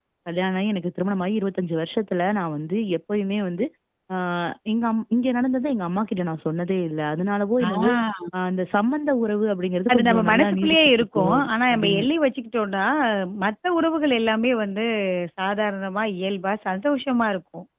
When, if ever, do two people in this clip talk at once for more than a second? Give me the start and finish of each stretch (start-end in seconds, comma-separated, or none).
9.9-12.1